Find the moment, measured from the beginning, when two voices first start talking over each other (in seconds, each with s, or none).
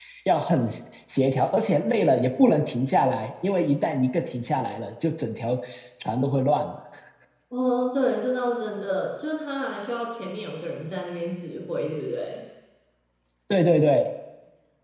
none